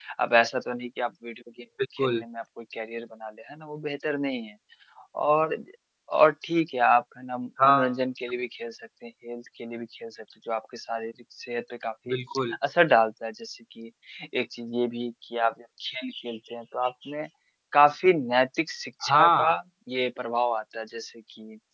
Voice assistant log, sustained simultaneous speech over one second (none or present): none